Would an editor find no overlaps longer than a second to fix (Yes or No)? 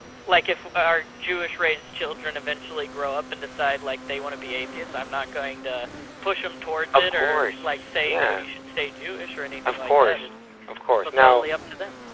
No